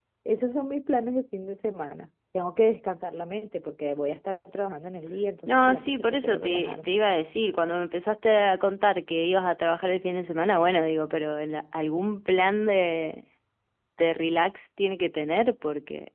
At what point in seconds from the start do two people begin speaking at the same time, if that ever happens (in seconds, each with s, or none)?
5.5 s